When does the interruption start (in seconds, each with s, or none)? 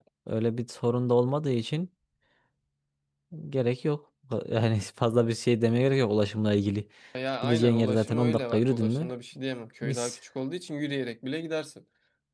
7.4 s